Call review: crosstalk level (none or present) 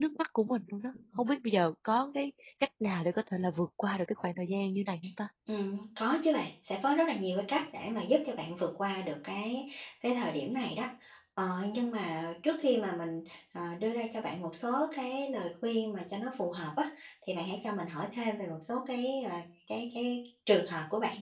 none